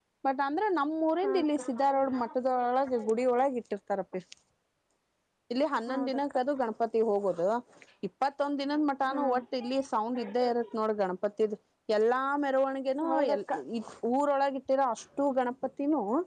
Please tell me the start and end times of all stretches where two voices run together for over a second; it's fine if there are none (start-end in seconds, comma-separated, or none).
1.3-3.4